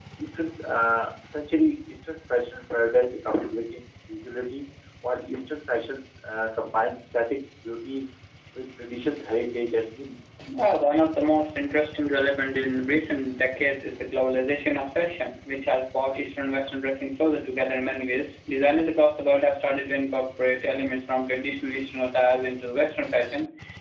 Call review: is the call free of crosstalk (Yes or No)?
Yes